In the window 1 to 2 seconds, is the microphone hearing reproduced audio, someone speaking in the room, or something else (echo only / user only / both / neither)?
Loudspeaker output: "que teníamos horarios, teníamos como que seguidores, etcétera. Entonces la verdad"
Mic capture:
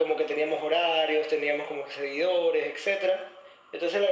echo only